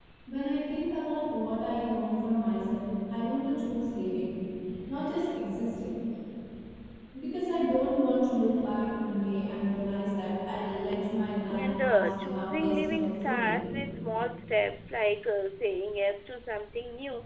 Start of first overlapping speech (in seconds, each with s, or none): 11.5 s